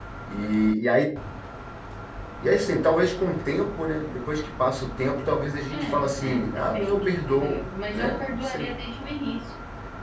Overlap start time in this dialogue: 5.7 s

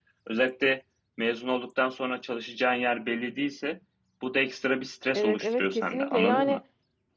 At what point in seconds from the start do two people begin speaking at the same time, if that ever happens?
5.1 s

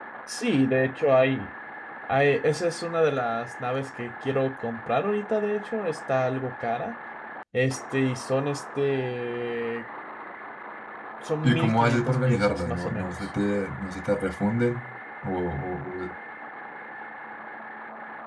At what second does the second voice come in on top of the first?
11.4 s

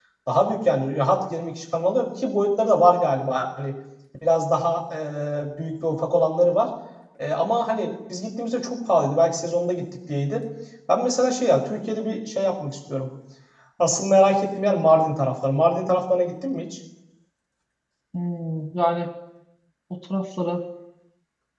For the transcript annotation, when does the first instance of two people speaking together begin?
none

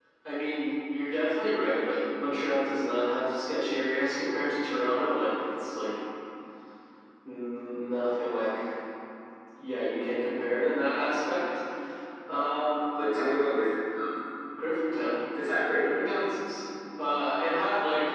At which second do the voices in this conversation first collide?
none

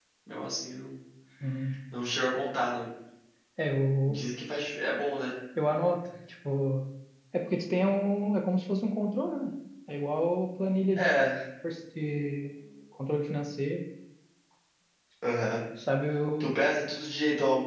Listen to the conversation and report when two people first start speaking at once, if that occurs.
none

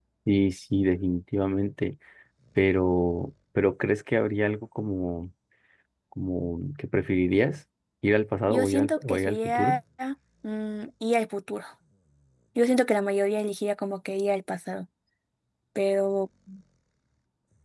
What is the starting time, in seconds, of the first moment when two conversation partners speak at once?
8.5 s

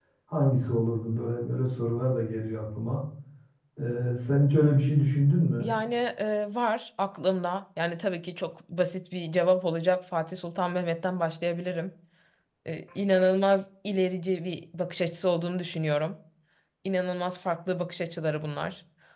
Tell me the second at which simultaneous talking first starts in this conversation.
none

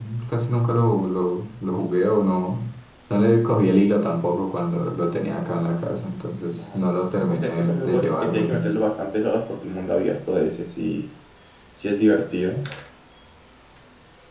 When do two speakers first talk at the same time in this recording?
6.5 s

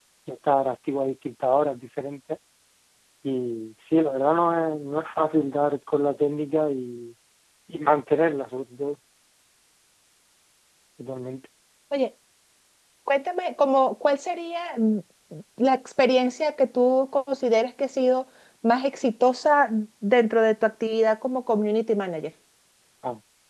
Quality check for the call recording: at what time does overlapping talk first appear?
none

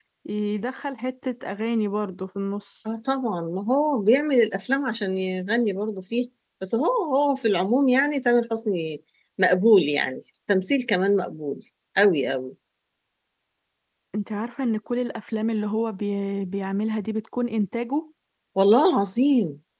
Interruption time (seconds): none

